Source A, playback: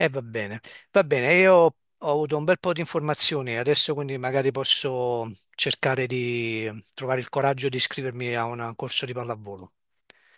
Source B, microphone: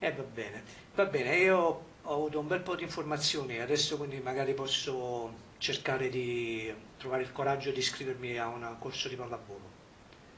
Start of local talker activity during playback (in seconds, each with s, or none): none